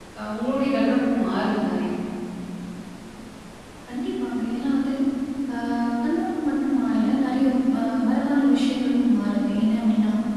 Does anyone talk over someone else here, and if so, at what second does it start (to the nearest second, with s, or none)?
none